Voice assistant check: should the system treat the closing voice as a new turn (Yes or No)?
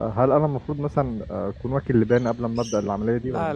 Yes